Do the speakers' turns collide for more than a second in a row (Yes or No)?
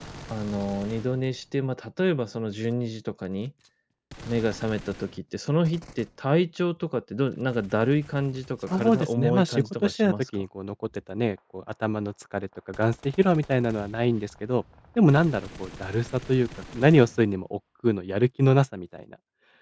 Yes